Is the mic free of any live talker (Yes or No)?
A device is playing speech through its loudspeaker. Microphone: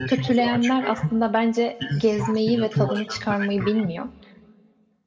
No